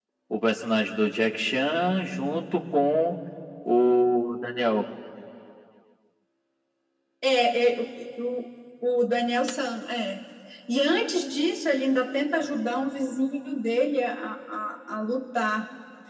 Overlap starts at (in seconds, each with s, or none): none